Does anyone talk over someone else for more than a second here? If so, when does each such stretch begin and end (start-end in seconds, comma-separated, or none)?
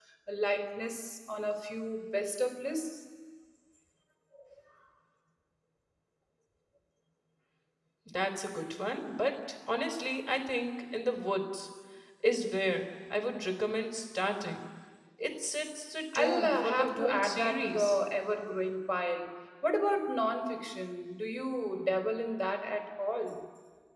16.1-18.0